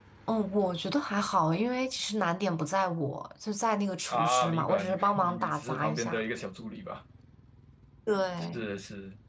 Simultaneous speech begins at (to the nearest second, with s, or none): 4 s